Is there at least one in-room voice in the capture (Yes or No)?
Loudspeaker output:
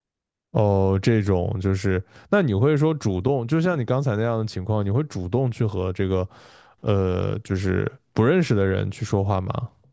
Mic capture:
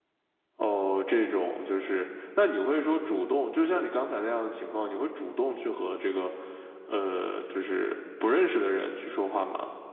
No